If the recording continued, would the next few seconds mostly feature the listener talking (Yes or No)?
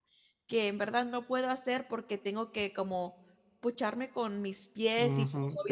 Yes